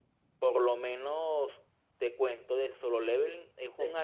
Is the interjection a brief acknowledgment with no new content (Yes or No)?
Yes